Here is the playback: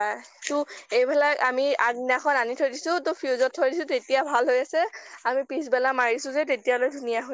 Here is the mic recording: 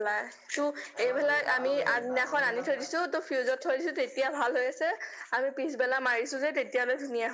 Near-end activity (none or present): present